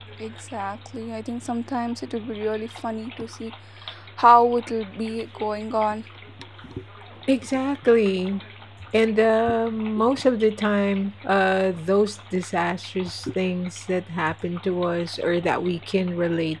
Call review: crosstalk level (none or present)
none